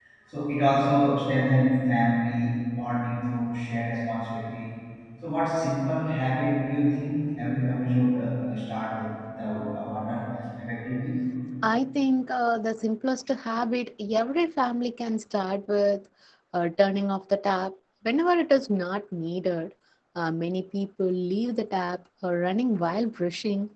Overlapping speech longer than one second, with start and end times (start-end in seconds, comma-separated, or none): none